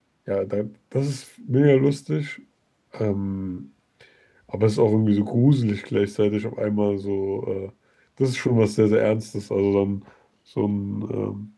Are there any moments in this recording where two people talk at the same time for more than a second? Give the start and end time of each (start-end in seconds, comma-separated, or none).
none